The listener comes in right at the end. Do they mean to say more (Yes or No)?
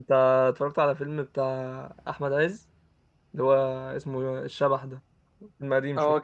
Yes